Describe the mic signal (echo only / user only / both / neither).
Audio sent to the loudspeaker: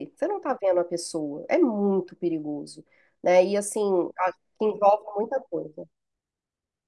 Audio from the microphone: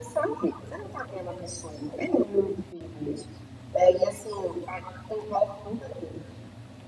echo only